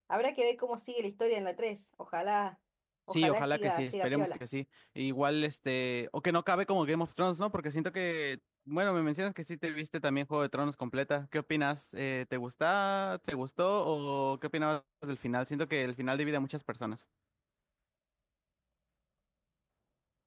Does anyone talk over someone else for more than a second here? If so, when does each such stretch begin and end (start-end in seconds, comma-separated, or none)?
3.1-4.4